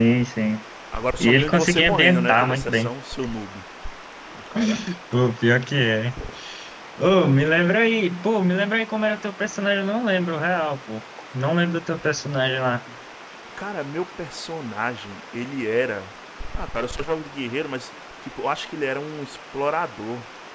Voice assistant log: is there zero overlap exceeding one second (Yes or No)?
No